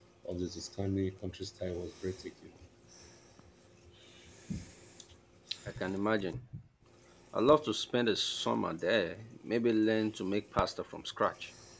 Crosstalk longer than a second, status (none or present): none